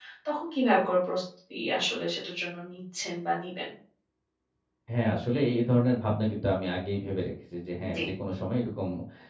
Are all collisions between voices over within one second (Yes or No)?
Yes